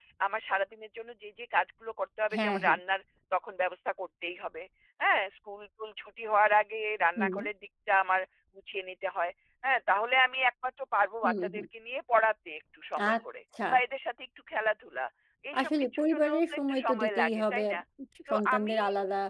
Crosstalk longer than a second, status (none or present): present